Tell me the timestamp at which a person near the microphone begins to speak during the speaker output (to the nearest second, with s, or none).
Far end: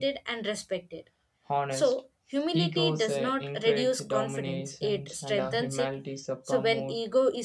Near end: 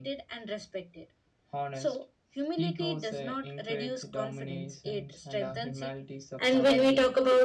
6 s